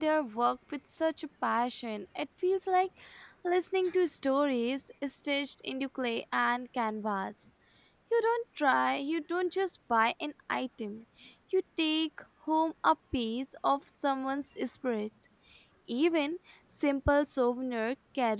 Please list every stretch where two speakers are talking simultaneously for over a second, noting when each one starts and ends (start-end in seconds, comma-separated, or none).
none